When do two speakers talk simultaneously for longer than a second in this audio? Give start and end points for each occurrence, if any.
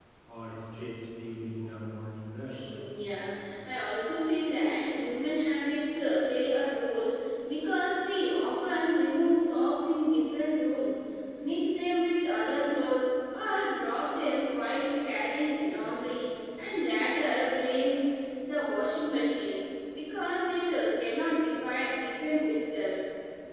none

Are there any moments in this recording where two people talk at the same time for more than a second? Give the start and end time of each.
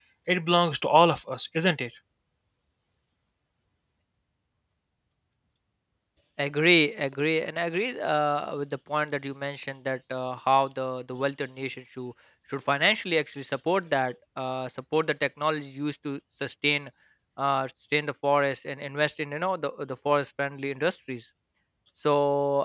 none

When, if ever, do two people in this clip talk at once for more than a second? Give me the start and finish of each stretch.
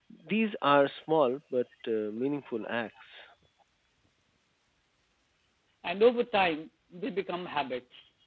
none

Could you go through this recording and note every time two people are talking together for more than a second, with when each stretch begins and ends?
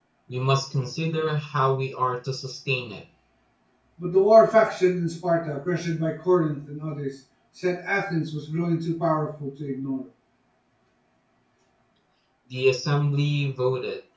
none

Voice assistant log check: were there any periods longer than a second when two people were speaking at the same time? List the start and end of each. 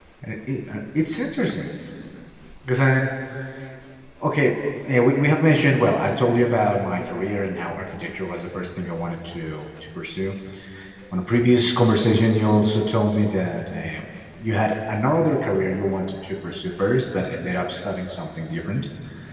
none

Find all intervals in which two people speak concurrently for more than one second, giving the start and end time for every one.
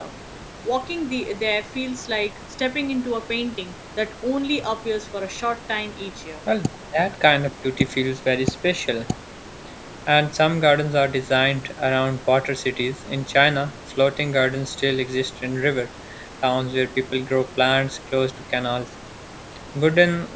none

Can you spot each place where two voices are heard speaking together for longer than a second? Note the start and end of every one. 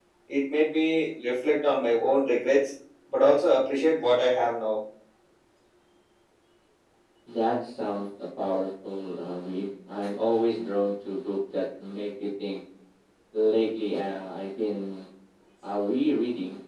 none

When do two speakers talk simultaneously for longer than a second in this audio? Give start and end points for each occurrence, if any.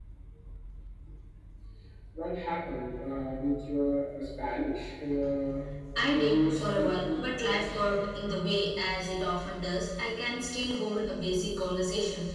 6.1-7.5

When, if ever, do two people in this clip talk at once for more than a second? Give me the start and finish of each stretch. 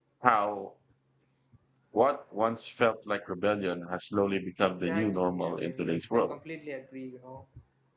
4.8-6.4

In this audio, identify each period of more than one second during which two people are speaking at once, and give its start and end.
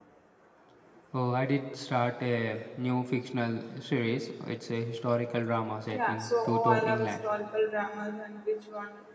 5.9-7.1

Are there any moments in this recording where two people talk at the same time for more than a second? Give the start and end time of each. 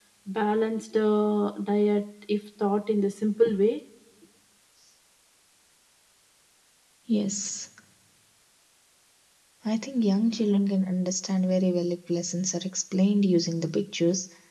none

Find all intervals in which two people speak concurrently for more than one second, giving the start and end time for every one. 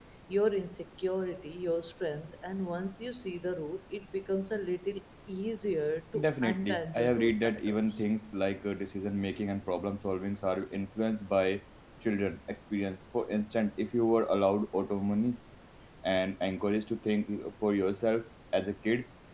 6.2-7.8

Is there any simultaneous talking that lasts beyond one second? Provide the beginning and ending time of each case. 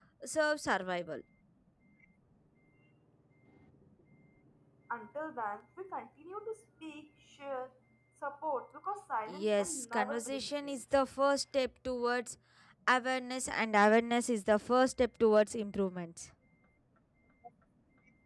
9.3-10.8

